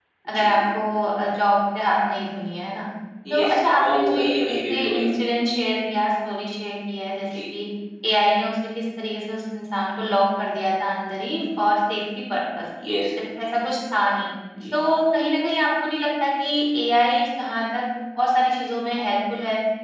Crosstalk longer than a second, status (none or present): present